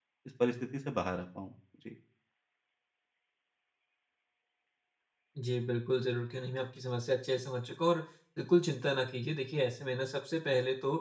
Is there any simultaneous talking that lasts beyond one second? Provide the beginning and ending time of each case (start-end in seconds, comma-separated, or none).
none